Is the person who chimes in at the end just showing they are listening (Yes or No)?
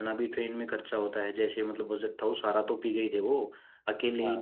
Yes